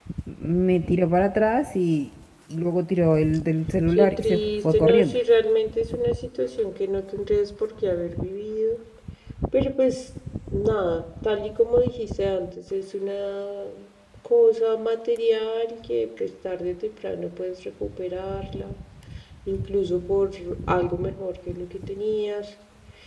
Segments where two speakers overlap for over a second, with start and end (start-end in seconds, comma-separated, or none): 4.0-5.2